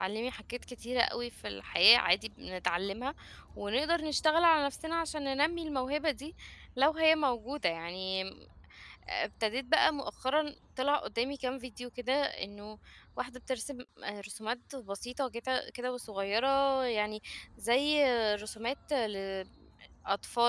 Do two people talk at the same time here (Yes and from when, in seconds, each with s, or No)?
No